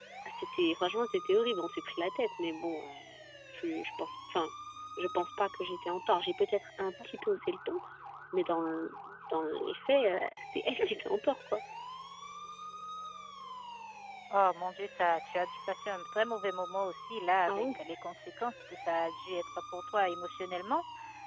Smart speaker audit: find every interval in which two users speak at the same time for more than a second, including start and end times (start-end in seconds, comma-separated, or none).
none